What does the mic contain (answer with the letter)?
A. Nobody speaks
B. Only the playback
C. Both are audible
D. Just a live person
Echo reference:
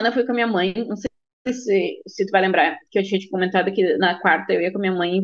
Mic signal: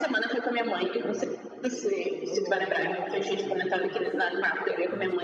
C